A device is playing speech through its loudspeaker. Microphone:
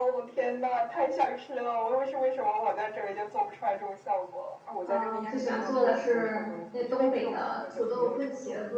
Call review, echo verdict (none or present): present